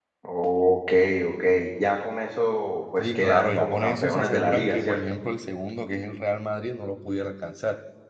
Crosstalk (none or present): present